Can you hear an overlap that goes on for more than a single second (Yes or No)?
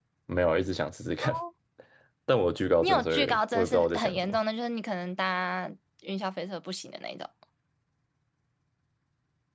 Yes